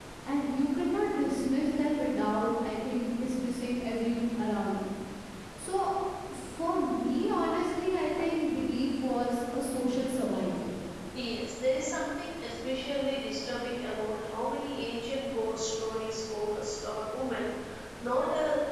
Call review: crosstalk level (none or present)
none